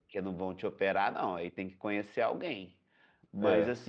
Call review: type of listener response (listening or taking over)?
listening